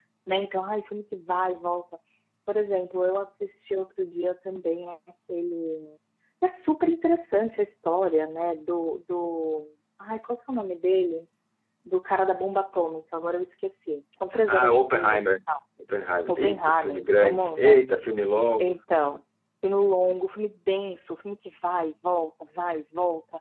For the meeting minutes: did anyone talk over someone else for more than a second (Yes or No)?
Yes